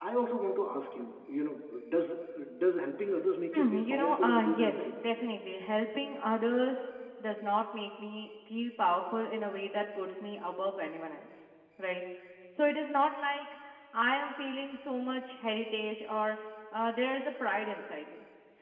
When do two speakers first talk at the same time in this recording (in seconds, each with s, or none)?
3.5 s